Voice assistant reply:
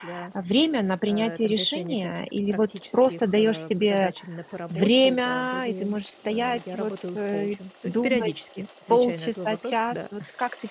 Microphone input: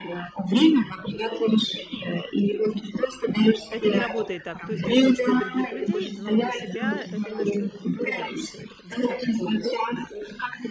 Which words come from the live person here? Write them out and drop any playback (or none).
это не работает так. То есть ты коуч для других людей, но для себя- это немножко д другая история, да.